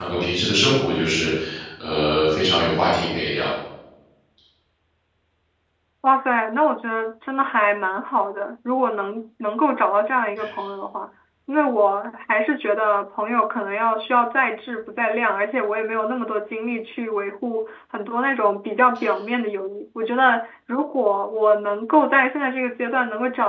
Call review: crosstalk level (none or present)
none